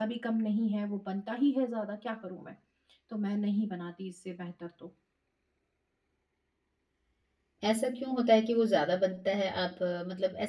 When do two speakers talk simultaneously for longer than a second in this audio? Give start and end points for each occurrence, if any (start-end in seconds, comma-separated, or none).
none